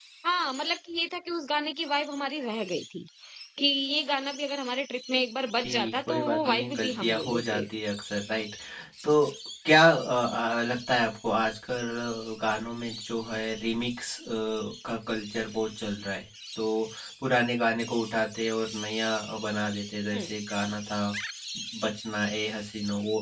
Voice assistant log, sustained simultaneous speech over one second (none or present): present